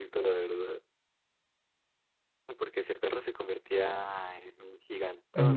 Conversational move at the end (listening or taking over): taking over